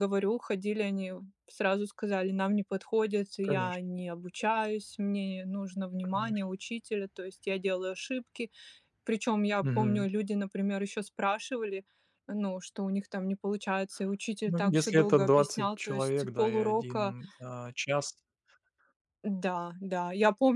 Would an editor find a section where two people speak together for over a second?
Yes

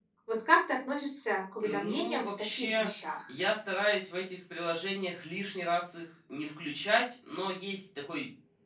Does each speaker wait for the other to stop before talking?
No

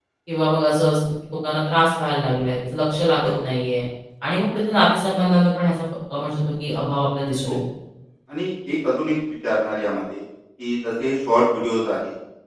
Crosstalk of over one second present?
No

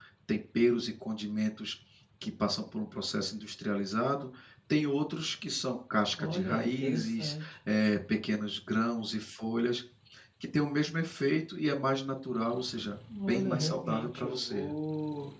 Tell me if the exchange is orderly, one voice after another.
No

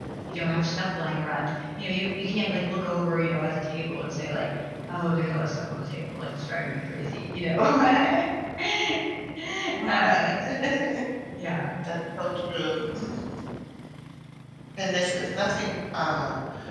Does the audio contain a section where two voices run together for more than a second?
No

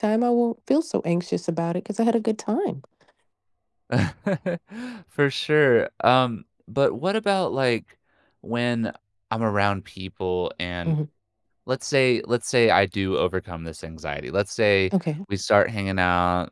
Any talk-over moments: No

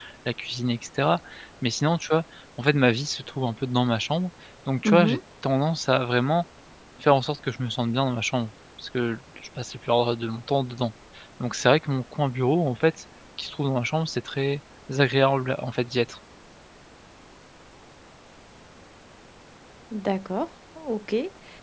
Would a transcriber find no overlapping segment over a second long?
Yes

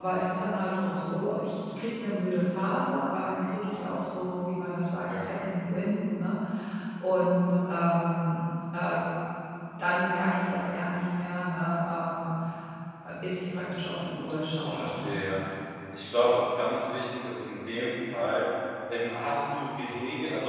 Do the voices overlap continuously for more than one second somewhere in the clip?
No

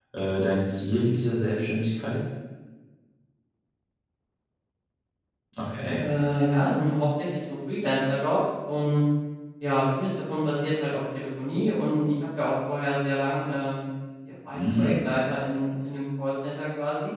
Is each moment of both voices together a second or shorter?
Yes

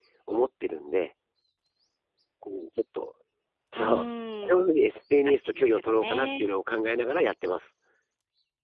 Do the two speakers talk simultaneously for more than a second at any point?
Yes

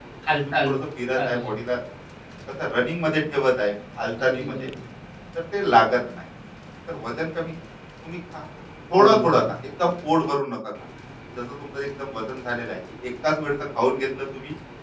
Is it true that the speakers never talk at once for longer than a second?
Yes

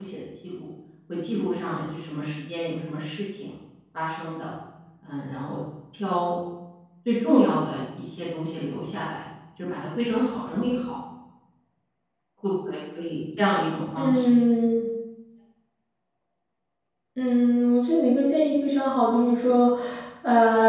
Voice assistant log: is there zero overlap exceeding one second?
Yes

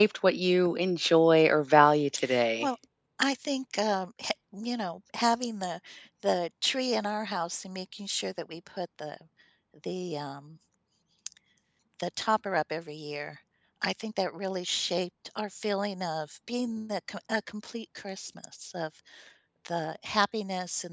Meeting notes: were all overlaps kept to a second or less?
Yes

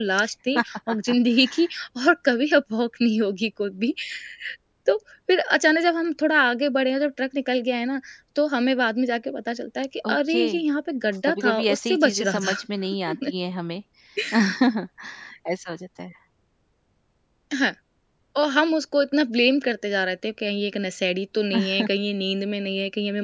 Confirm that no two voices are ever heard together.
No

